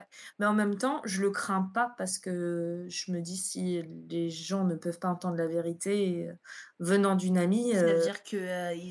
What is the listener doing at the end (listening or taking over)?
taking over